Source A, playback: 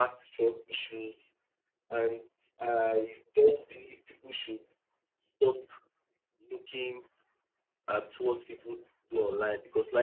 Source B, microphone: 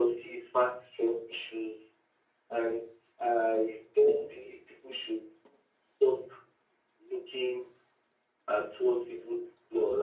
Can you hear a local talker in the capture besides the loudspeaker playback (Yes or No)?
No